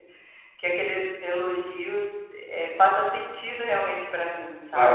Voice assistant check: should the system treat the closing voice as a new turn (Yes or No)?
Yes